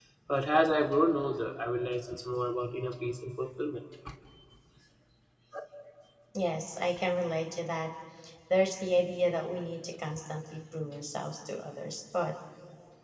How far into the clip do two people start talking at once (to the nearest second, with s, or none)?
none